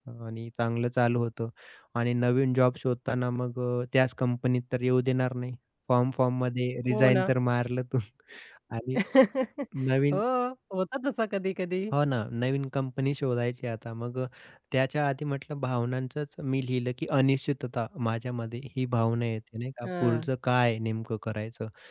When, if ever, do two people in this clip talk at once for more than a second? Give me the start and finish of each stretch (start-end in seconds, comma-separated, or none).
none